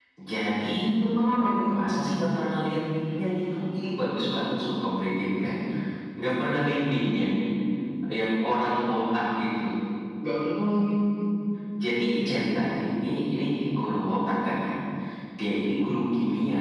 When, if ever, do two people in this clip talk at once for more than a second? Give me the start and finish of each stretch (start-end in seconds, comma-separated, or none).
none